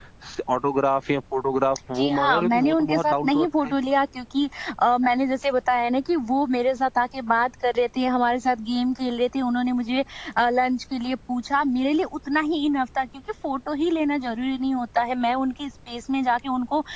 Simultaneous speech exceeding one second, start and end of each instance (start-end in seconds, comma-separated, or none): 2.0-3.7